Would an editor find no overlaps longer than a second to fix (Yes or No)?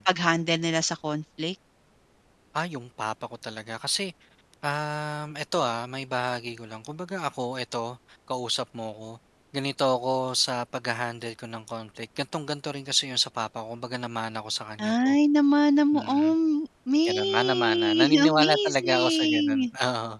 No